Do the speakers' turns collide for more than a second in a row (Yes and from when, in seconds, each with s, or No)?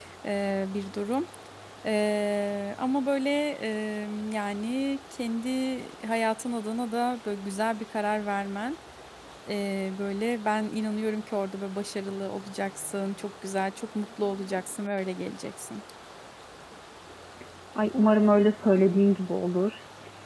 No